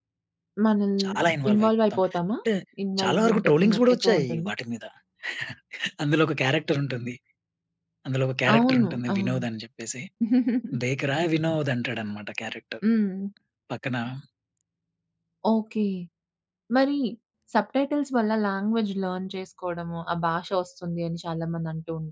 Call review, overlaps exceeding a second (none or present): present